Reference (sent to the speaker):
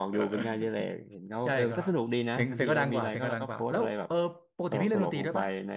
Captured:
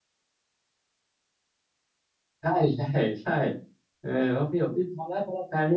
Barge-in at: 2.4 s

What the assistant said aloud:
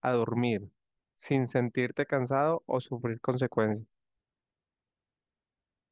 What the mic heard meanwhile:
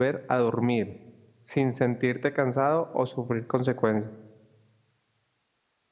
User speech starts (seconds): none

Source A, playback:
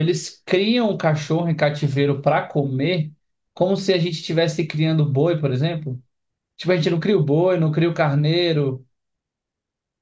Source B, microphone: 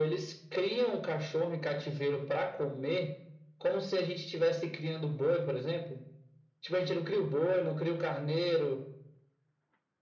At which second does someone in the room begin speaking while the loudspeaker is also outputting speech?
none

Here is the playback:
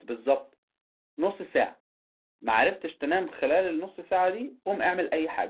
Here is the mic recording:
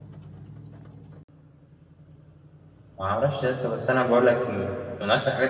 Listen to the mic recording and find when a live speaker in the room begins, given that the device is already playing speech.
3.0 s

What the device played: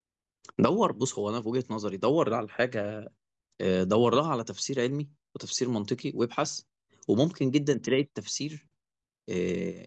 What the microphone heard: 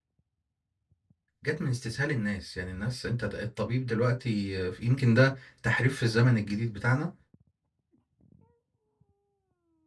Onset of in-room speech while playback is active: 1.4 s

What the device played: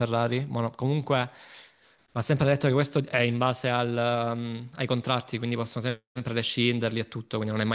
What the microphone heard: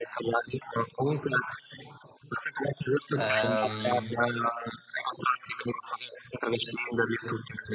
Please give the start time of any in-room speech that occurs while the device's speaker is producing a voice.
3.1 s

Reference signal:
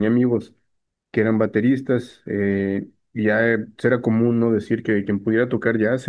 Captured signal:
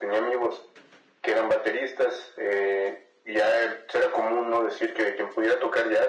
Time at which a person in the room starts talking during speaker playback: none

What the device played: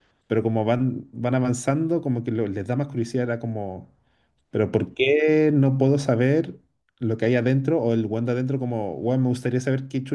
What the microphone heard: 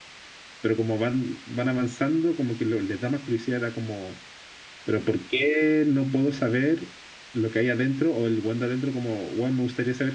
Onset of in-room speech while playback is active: none

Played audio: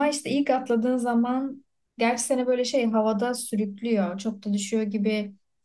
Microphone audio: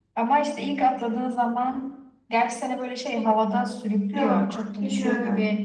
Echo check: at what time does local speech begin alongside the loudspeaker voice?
4.1 s

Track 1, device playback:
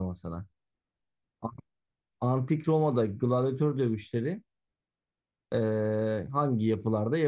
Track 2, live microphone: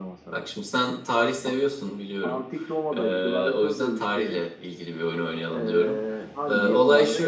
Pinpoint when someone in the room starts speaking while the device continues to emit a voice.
0.3 s

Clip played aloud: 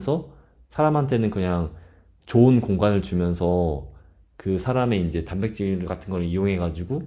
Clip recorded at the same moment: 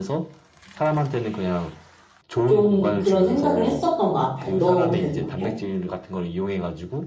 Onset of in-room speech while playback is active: 2.5 s

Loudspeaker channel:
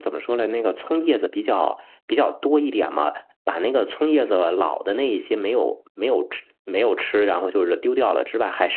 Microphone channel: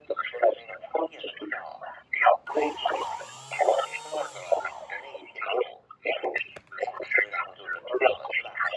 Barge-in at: none

